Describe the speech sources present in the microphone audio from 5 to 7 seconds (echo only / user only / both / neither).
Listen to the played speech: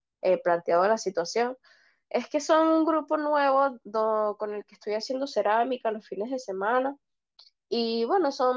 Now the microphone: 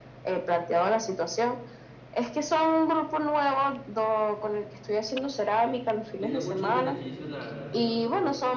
both